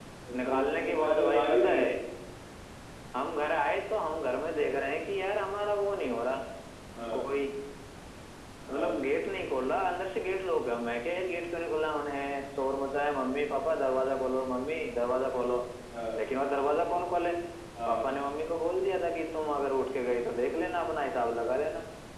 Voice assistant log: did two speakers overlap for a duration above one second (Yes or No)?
Yes